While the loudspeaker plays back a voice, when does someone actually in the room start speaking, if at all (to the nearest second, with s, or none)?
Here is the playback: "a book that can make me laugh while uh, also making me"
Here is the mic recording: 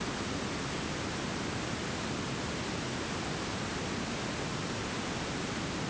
none